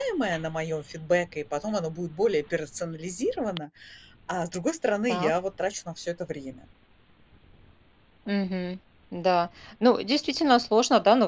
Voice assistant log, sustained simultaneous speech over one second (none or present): none